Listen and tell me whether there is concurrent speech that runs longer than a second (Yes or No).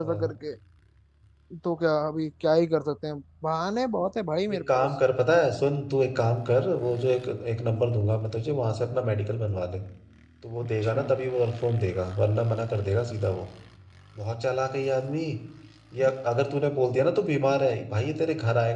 No